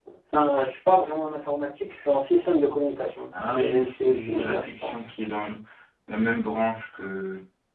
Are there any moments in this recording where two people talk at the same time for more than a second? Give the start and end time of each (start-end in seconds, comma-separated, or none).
3.5-5.0